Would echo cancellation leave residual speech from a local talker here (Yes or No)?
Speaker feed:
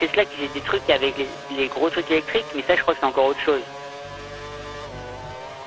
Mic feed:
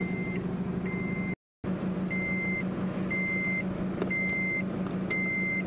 No